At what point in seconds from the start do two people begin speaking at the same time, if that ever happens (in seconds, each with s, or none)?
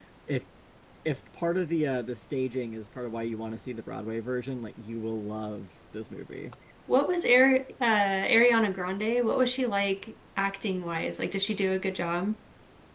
none